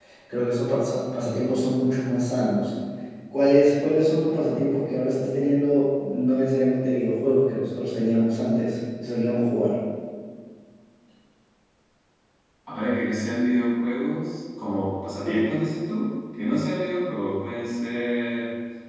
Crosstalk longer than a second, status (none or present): none